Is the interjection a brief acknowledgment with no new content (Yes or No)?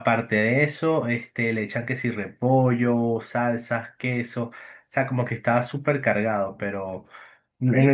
Yes